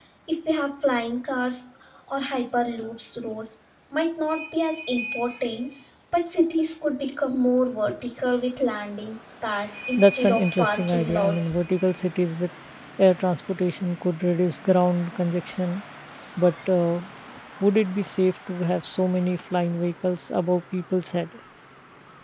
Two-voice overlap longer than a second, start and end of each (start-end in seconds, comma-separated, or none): 10.0-11.6